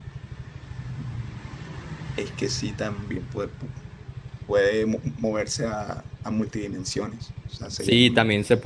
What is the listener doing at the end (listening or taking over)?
taking over